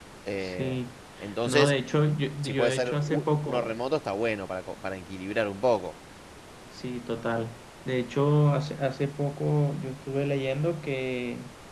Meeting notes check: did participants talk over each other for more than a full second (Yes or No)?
Yes